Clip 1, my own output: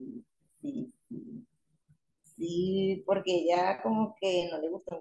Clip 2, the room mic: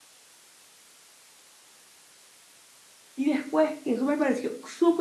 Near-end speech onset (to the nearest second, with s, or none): 3 s